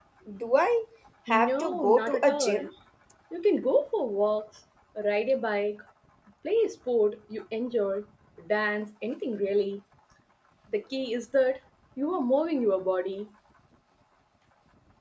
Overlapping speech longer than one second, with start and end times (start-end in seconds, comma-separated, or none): 1.3-2.7